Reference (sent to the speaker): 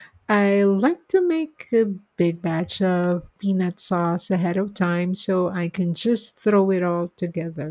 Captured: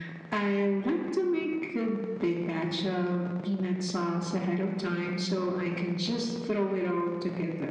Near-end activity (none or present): none